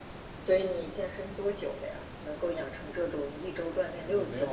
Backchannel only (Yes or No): No